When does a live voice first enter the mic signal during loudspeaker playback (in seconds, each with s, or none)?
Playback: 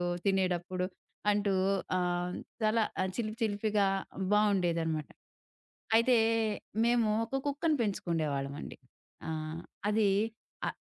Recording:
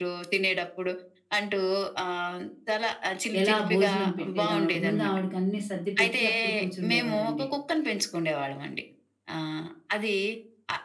3.4 s